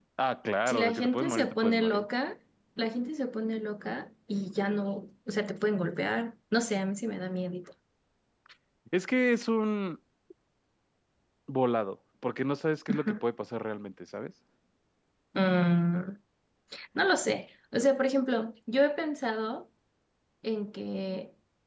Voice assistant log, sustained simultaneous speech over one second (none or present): present